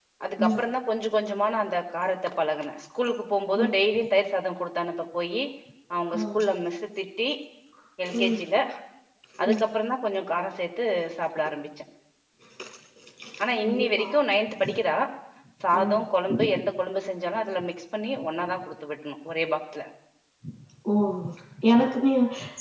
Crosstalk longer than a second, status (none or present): none